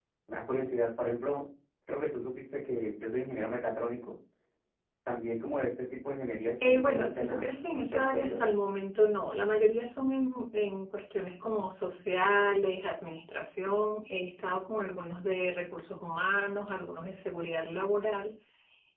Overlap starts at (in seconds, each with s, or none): 6.6 s